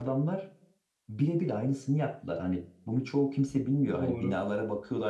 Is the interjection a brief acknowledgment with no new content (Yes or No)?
Yes